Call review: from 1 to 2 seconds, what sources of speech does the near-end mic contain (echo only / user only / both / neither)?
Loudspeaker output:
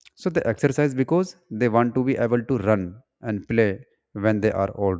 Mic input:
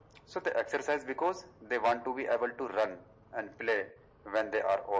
echo only